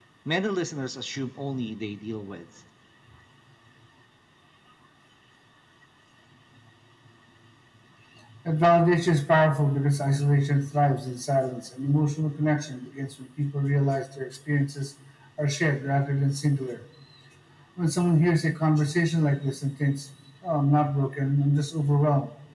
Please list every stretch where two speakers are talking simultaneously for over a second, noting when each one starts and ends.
none

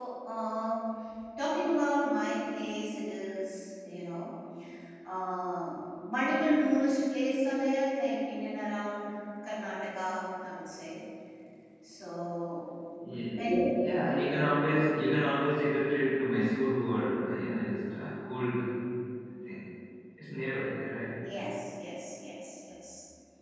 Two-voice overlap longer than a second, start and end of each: none

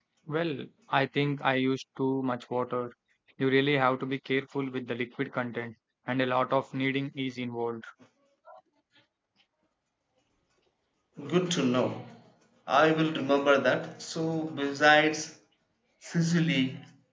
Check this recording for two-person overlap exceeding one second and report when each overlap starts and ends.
none

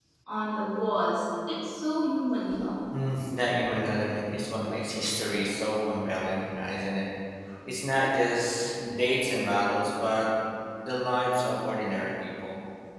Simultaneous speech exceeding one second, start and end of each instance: none

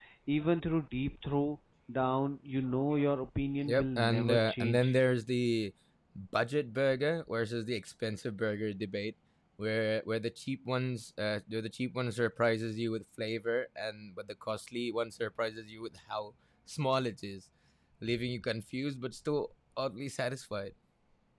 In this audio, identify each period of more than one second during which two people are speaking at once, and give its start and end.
3.6-4.9

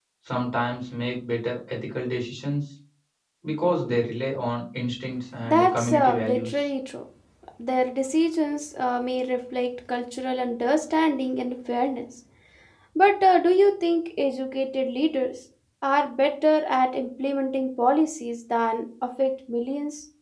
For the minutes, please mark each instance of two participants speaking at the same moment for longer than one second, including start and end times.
5.5-6.7

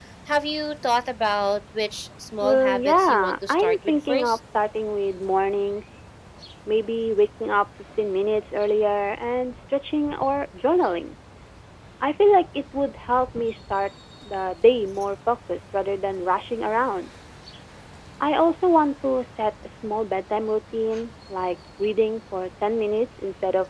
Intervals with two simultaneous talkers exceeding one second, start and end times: 2.4-4.4

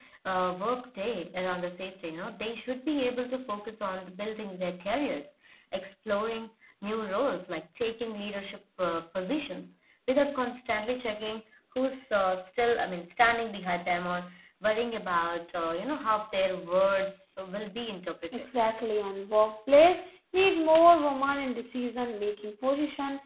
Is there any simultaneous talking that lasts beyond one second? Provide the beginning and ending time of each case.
none

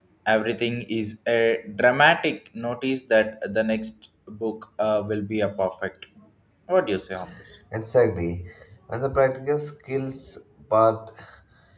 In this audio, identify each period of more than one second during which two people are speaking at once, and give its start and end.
none

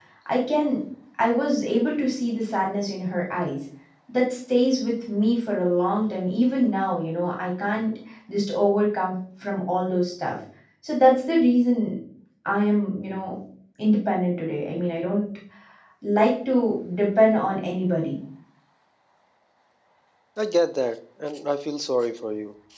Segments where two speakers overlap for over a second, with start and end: none

